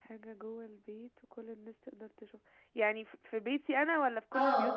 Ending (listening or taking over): taking over